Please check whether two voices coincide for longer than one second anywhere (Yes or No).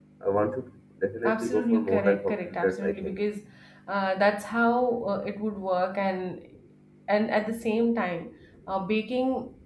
Yes